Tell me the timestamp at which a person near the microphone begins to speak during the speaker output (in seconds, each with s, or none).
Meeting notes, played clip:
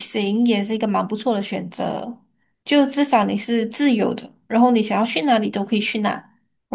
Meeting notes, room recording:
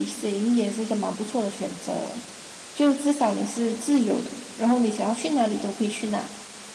none